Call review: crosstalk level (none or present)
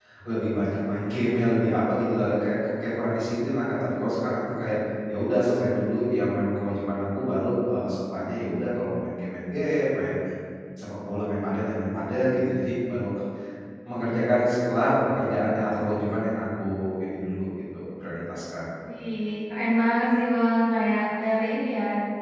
none